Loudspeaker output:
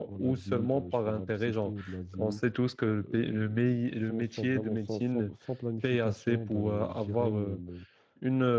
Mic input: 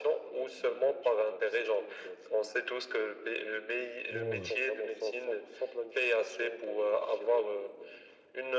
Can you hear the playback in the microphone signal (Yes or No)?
Yes